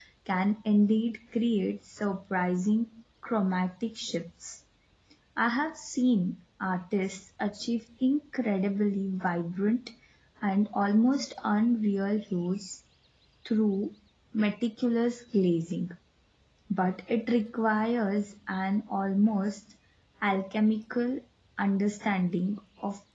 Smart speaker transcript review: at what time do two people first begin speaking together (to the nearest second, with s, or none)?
none